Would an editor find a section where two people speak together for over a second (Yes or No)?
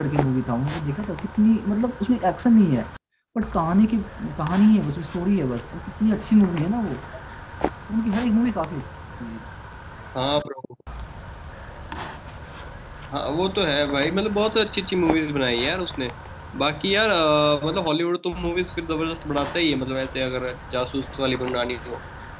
No